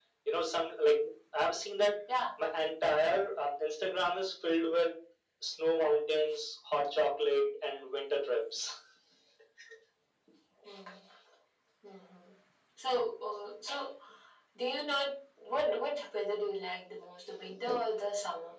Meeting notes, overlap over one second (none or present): none